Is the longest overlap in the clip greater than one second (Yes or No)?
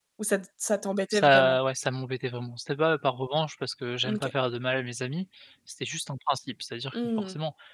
No